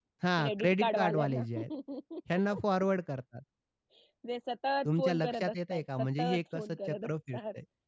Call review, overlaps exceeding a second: present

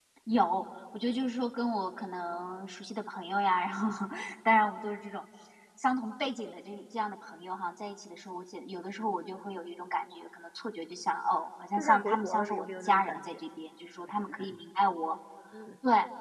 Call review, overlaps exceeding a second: present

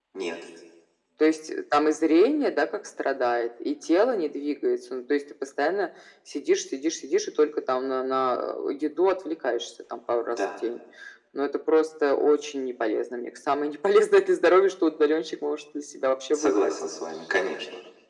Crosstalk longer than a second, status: none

